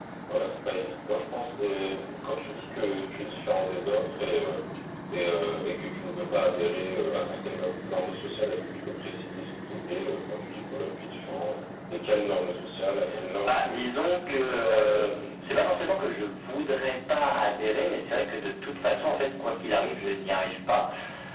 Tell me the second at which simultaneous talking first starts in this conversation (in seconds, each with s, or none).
13.4 s